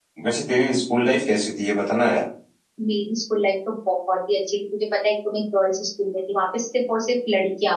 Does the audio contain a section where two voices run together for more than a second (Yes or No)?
No